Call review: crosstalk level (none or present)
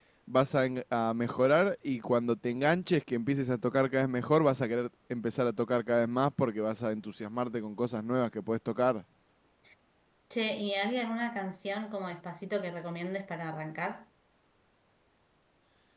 none